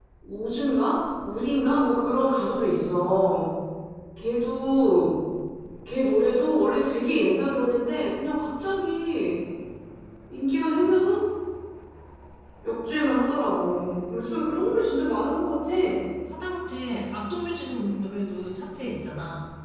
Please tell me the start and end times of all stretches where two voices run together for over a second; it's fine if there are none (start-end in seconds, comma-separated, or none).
none